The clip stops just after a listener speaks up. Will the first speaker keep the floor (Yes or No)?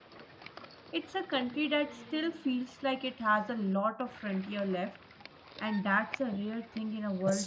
No